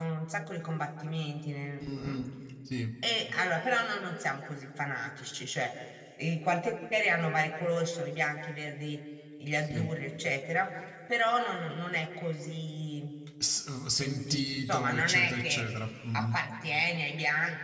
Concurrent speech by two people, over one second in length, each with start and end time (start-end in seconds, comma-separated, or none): 13.9-15.6